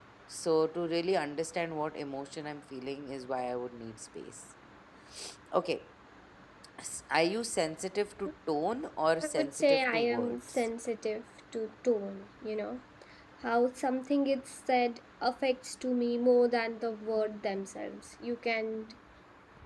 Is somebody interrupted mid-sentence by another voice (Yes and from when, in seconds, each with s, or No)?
Yes, from 9.2 s